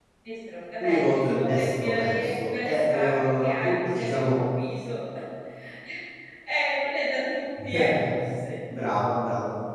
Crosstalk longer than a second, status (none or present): present